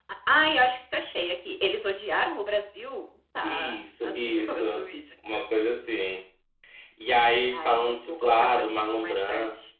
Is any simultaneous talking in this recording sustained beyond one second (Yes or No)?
Yes